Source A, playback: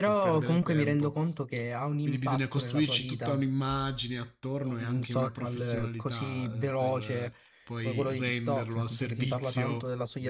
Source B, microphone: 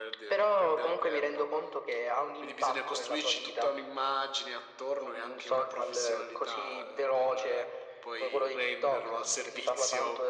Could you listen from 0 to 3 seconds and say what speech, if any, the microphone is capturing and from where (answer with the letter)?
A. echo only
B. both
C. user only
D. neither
A